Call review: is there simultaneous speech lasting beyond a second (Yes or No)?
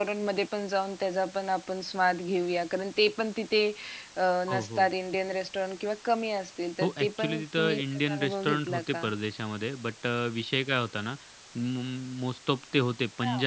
Yes